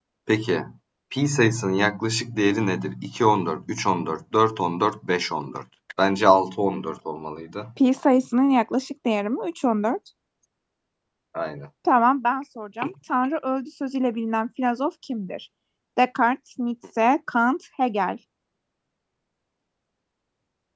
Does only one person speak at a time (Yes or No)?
Yes